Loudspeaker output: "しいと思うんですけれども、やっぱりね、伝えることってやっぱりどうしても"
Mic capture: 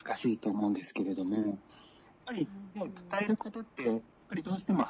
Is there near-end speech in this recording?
Yes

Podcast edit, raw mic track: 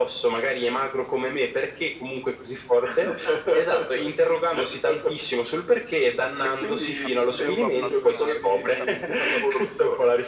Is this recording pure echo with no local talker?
No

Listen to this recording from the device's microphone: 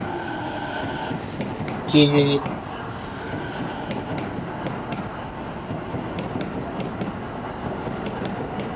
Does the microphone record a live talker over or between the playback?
Yes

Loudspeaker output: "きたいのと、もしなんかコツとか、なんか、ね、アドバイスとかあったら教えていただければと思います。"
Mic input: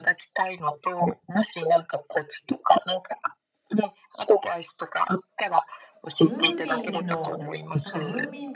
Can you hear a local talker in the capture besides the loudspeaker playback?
Yes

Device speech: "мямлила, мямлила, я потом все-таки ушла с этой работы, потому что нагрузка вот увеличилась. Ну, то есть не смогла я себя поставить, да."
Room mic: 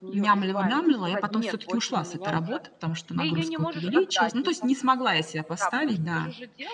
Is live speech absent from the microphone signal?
No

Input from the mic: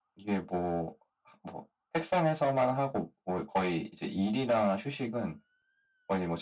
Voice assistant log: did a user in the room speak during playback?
No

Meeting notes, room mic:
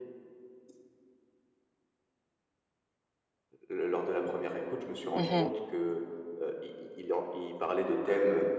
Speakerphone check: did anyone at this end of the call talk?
Yes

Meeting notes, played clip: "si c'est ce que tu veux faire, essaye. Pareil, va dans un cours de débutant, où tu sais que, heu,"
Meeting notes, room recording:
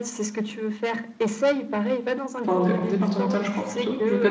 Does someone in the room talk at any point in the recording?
Yes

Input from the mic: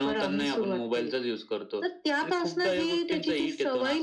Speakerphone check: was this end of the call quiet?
Yes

